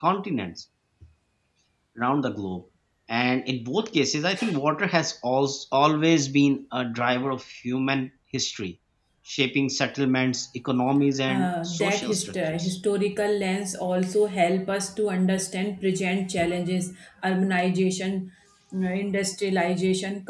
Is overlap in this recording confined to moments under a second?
No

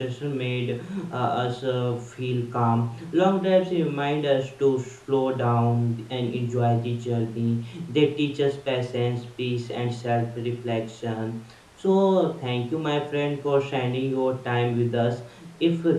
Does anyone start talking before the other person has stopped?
No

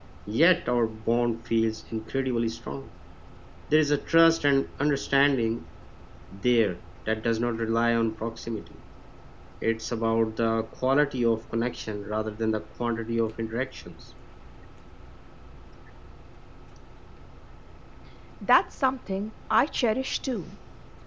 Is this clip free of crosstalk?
Yes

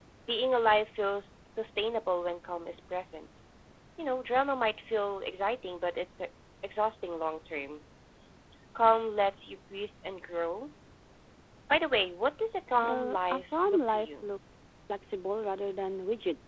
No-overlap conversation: No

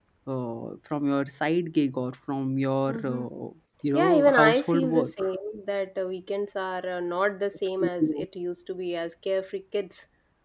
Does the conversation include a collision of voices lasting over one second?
Yes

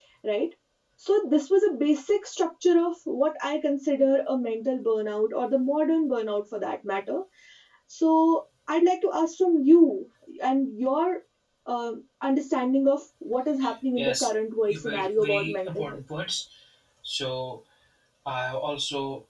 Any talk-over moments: Yes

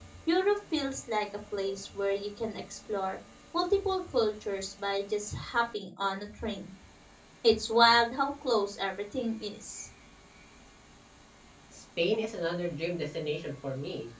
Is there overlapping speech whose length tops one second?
No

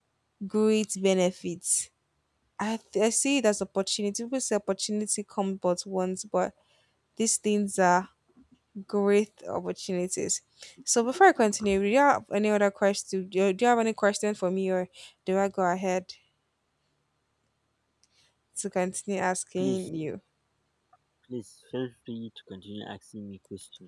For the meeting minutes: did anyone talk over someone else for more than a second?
No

